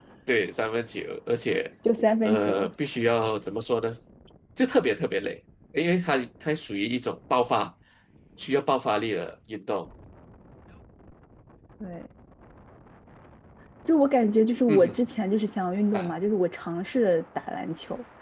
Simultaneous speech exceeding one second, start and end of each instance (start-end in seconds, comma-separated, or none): none